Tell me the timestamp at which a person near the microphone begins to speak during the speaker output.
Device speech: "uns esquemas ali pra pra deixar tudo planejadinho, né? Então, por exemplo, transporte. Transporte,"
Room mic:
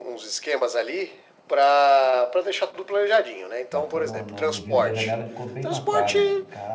3.7 s

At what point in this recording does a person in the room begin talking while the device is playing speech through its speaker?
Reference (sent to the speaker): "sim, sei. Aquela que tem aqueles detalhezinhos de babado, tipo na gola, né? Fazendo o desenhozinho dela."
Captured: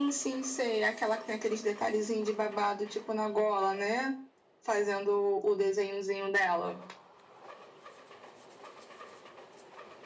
none

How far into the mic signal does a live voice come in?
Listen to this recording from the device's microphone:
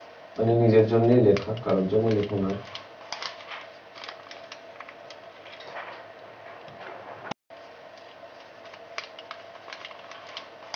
0.4 s

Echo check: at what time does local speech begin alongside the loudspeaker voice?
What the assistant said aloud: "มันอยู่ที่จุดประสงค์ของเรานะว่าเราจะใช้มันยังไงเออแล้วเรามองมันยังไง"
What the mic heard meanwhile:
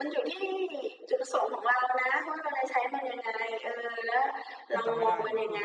4.7 s

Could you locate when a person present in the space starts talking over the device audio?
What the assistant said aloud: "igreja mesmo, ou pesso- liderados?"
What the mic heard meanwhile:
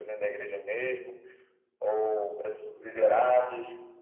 none

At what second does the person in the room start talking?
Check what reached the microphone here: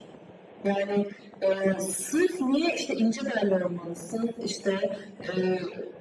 none

